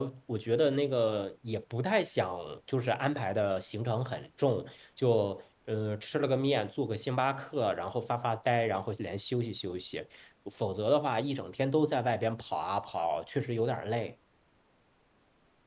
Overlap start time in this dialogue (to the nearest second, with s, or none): none